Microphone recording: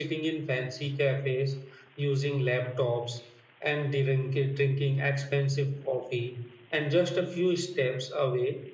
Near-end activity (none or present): none